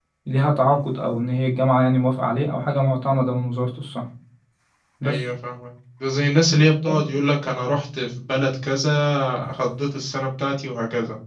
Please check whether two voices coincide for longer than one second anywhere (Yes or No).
No